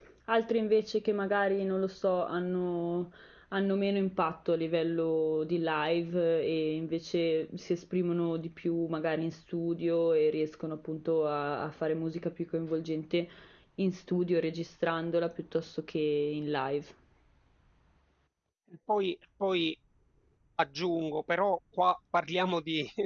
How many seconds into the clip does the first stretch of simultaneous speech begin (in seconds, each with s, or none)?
none